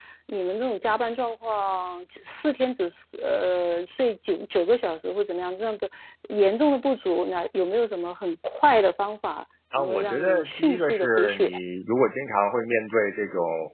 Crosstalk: present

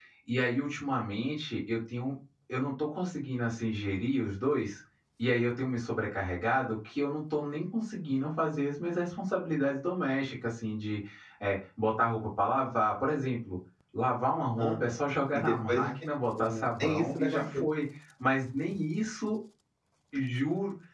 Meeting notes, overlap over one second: present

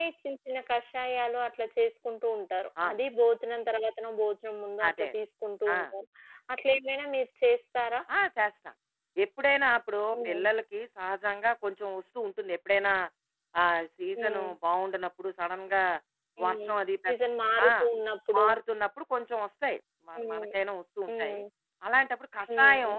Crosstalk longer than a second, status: none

